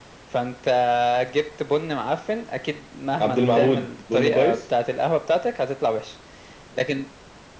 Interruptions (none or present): present